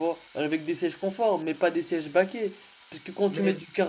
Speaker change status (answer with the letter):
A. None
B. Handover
A